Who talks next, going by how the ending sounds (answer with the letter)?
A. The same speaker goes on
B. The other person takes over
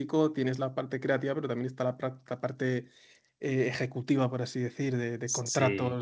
A